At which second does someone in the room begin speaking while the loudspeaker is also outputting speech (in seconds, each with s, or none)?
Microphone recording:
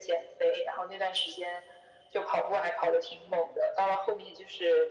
none